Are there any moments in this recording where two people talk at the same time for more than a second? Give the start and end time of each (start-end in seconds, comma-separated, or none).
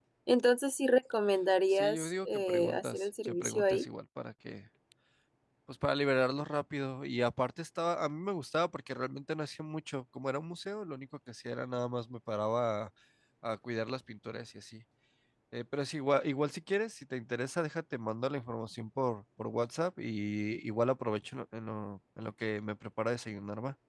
1.7-3.9